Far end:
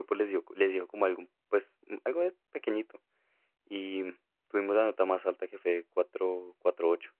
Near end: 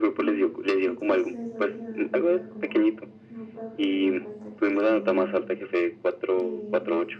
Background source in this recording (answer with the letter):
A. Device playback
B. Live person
B